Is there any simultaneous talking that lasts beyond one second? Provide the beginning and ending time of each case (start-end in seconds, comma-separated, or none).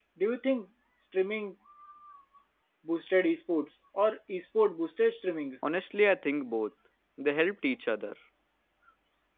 none